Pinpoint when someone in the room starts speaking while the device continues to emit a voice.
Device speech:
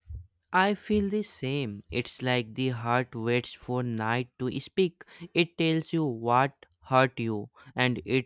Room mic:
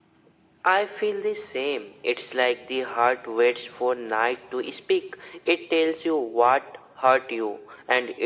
none

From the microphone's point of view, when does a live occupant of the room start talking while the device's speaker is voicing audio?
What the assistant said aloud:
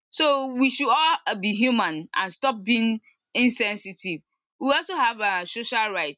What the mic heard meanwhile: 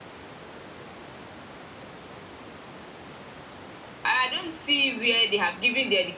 4.0 s

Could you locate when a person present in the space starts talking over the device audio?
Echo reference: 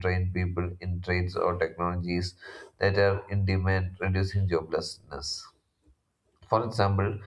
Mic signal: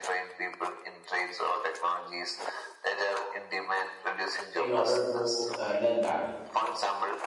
4.5 s

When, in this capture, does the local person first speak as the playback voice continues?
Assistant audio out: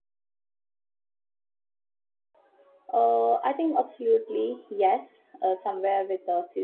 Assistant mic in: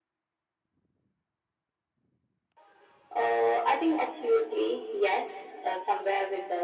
none

